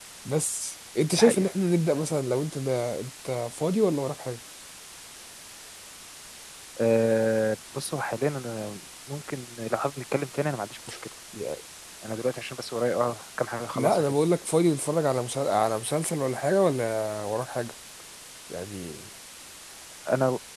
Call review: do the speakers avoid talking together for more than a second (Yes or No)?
Yes